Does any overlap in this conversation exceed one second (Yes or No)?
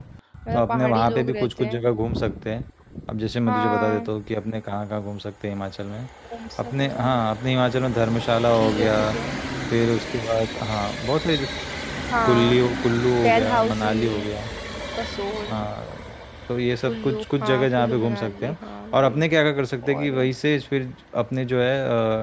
Yes